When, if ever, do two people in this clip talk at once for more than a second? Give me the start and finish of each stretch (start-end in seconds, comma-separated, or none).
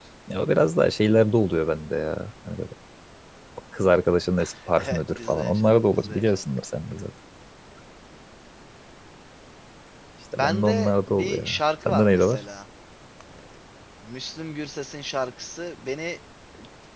4.8-6.4, 10.3-12.4